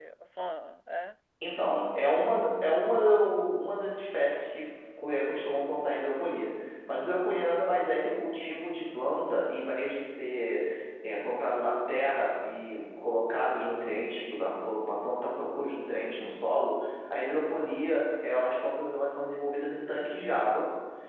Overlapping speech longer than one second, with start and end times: none

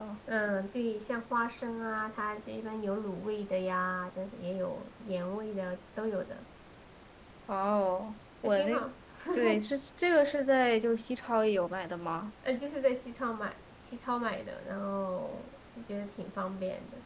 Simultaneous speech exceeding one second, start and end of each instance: none

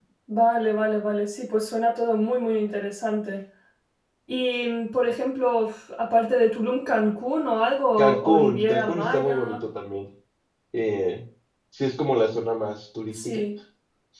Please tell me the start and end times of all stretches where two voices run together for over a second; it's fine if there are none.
8.0-9.6

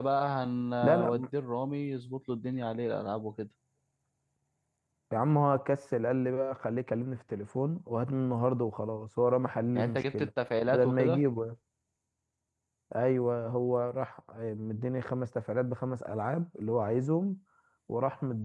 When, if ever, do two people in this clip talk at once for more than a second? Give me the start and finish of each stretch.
none

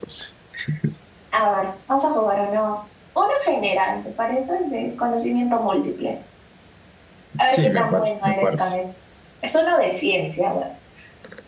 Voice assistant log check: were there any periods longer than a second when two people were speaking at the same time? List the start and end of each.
7.5-8.8

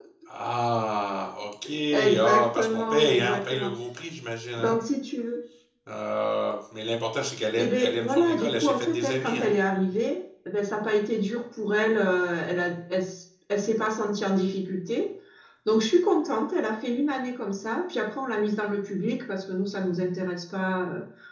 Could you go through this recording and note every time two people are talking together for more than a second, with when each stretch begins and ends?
2.2-3.7, 7.6-9.5

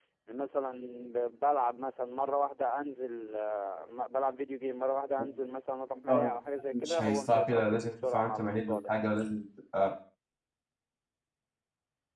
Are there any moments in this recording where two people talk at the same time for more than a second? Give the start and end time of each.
6.7-8.9

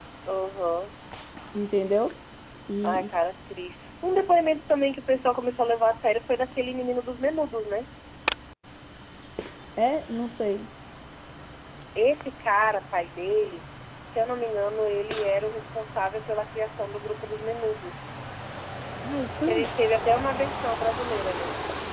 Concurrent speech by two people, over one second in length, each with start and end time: none

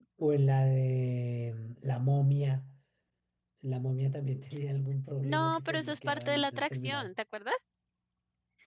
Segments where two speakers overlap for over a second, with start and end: 5.2-7.1

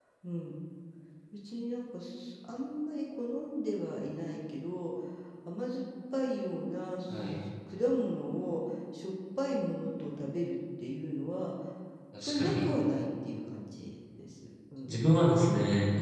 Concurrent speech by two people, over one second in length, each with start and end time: none

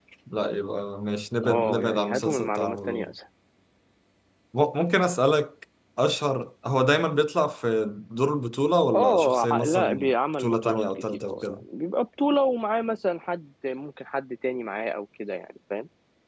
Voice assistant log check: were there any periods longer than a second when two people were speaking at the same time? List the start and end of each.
1.4-3.1, 8.9-11.6

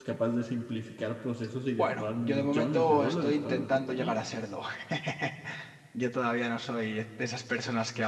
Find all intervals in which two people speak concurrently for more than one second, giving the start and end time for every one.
1.8-4.2

